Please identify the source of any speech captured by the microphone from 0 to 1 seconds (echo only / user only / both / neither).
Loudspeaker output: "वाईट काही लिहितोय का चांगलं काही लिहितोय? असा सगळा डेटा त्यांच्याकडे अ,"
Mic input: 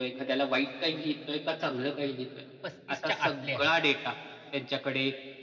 echo only